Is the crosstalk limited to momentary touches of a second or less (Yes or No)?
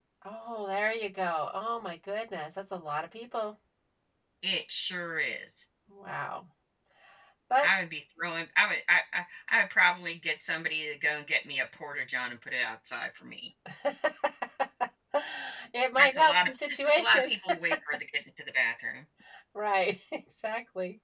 No